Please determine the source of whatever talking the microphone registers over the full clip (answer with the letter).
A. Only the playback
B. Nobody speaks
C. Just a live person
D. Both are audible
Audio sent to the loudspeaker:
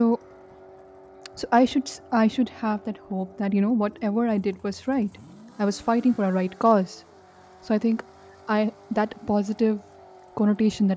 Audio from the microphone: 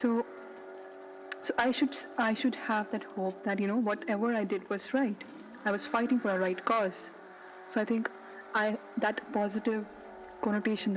A